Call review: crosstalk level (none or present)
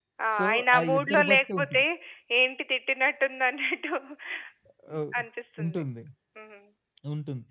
present